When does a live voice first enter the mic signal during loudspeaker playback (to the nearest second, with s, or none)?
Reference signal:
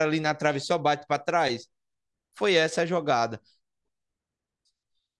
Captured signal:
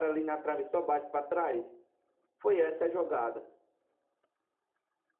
none